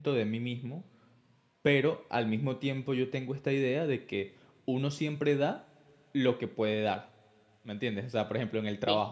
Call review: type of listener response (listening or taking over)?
listening